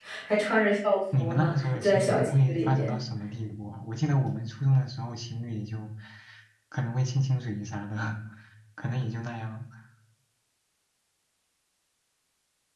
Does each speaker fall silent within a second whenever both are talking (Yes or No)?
No